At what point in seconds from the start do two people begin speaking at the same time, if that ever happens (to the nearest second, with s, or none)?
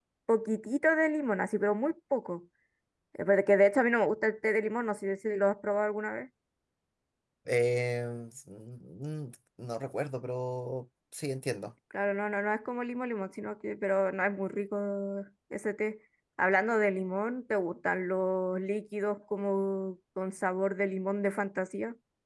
none